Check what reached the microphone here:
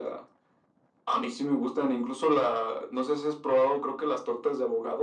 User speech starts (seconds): none

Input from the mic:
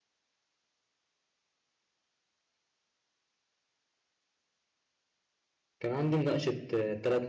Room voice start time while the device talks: 6 s

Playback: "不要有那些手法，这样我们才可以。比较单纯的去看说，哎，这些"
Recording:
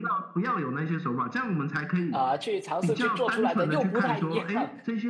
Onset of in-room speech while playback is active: 2 s

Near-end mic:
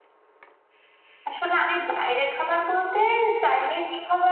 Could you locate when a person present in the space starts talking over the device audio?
1 s

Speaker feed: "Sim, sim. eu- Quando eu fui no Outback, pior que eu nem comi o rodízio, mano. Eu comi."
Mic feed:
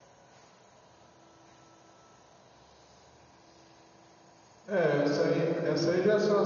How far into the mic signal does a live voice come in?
5 s

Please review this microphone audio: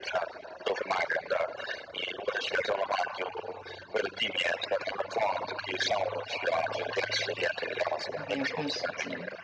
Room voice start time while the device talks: 8 s

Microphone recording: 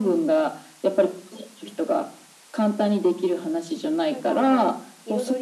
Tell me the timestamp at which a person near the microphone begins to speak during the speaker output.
4 s

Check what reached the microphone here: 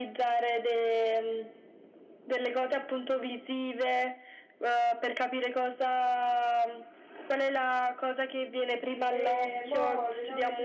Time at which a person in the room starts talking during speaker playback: 9 s

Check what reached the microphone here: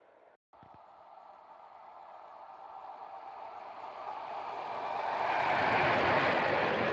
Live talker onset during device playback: none

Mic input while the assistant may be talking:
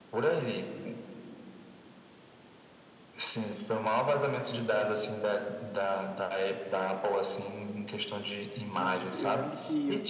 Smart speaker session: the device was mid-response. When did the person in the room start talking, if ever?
9 s

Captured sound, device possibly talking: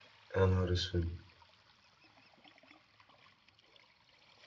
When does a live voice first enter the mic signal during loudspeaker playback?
0 s

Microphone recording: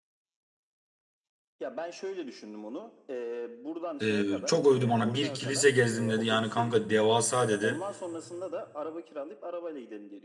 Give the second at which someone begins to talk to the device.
4 s

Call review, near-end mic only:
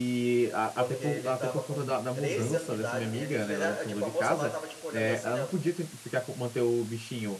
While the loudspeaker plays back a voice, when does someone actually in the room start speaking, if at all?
1 s

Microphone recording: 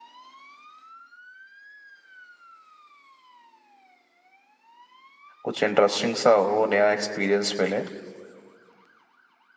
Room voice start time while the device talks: 5 s

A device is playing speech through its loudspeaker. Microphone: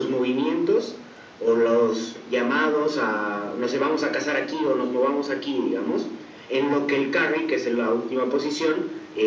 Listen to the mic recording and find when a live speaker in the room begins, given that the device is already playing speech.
none

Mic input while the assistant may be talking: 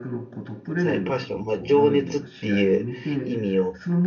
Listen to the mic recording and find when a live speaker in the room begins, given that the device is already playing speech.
1 s

